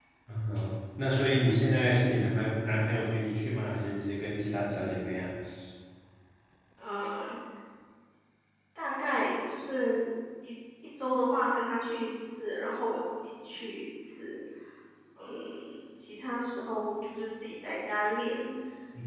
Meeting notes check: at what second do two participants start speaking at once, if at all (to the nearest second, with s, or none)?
none